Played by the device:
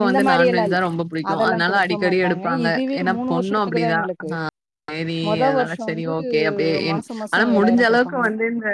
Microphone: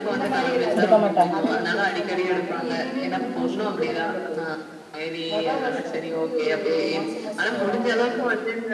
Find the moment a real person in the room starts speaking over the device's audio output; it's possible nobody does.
0.8 s

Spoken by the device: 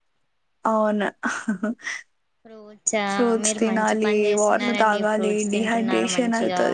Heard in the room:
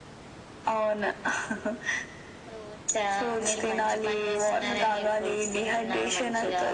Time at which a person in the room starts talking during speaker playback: none

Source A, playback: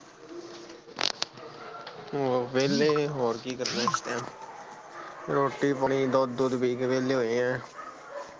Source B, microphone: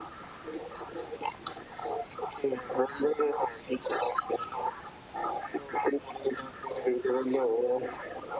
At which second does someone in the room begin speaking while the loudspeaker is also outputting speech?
none

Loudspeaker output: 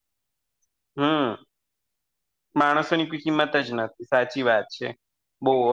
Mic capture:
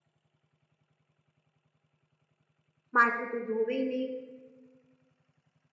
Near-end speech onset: 3.0 s

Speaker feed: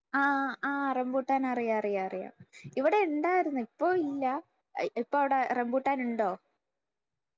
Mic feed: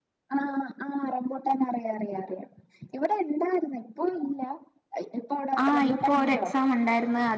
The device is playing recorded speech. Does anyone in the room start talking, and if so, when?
5.6 s

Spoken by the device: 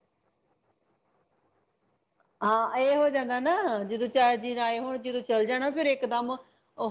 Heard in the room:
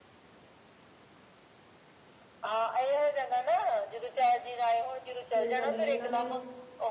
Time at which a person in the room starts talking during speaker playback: 5.3 s

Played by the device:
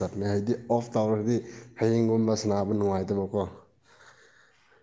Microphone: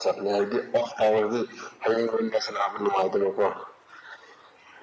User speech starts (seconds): none

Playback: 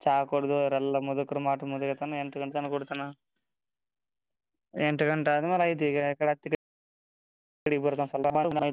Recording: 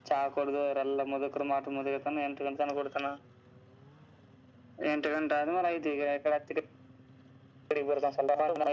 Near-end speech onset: none

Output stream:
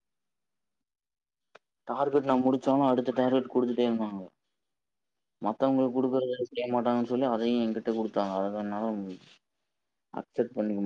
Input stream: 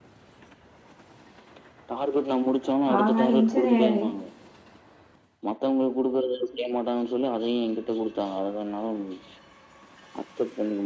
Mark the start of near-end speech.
3.0 s

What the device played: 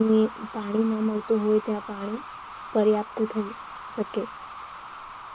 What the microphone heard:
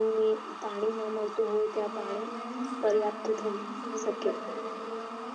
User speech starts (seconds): 1.8 s

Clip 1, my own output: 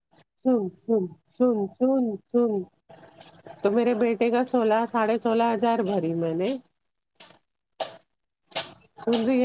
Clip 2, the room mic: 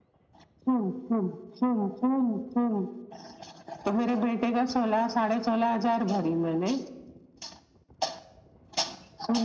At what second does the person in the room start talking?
none

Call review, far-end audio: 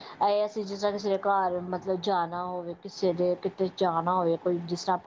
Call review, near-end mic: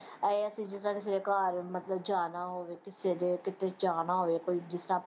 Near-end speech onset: none

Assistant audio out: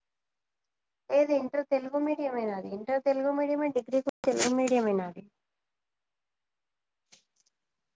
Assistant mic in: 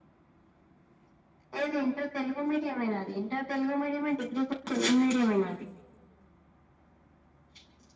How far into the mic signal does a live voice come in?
none

